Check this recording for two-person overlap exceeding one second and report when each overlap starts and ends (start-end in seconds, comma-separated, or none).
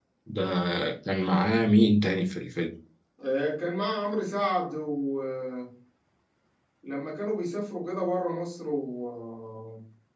none